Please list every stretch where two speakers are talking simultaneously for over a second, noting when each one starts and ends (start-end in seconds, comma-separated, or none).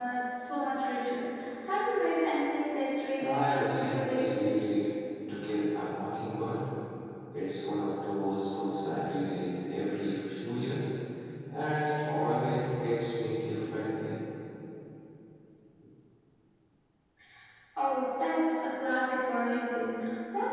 3.2-4.5